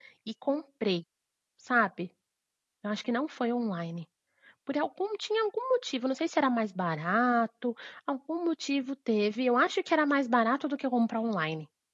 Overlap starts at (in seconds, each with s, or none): none